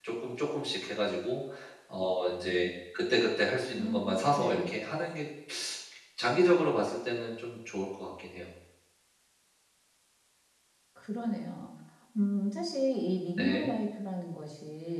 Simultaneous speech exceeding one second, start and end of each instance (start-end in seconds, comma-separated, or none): none